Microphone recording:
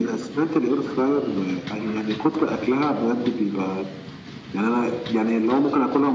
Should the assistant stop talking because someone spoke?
No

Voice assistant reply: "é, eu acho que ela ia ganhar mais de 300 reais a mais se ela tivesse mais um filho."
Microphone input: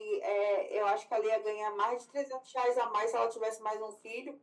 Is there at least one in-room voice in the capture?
No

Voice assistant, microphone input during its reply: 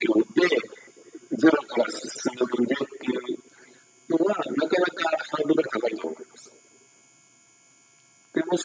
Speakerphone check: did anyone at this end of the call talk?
No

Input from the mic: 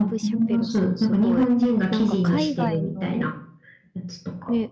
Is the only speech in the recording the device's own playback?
No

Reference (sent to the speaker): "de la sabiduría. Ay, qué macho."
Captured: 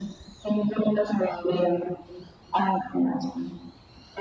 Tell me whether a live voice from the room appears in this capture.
No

